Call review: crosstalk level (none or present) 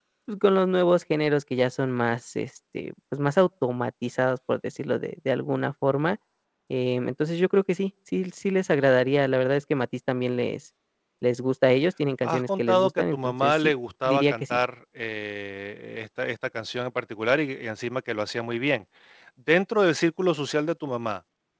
present